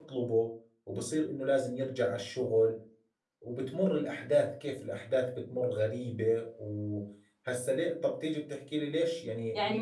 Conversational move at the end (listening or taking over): taking over